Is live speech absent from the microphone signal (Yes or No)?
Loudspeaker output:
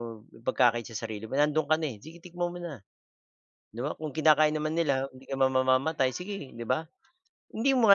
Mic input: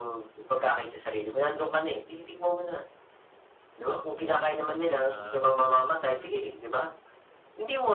No